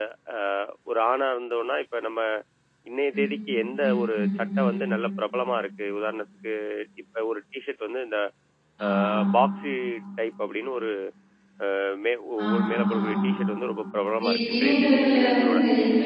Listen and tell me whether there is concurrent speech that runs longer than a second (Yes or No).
Yes